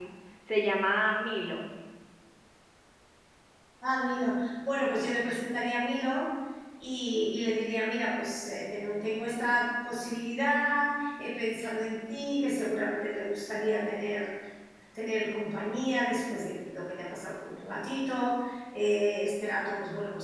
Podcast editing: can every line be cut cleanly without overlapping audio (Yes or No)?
Yes